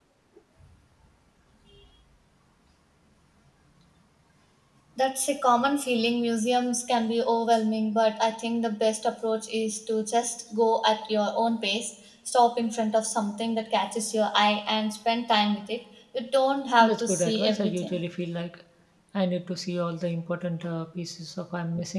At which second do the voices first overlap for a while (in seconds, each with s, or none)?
16.8 s